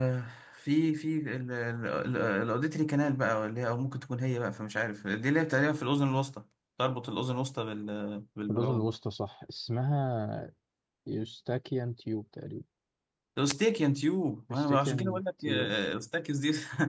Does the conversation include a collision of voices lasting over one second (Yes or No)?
Yes